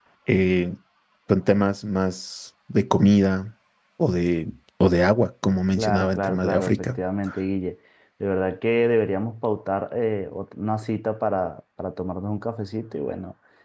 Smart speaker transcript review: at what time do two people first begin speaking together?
5.8 s

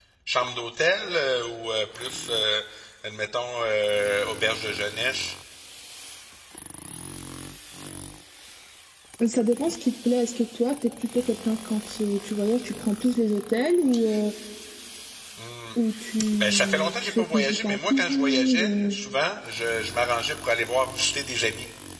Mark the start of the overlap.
16.4 s

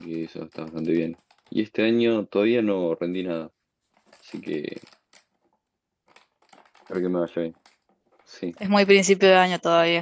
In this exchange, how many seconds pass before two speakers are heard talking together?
none

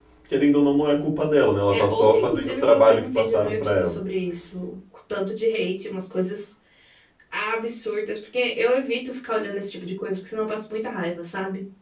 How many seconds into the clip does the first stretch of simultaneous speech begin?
1.7 s

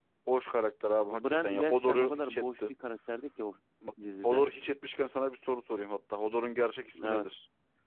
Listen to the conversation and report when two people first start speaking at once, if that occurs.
1.1 s

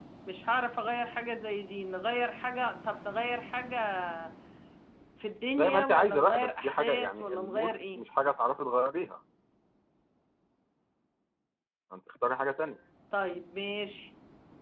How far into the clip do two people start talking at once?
5.6 s

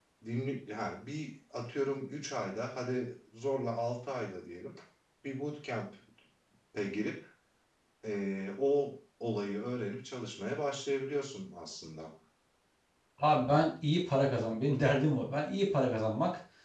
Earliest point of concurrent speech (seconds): none

